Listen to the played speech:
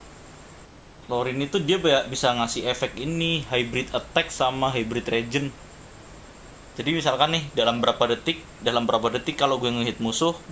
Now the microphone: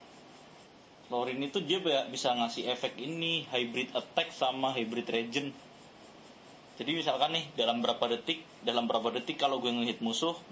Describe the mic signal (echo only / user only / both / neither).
echo only